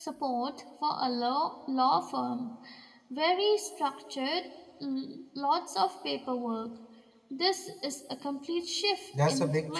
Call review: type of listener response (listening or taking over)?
taking over